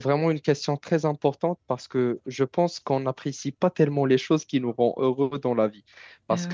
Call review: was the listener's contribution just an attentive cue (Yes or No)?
Yes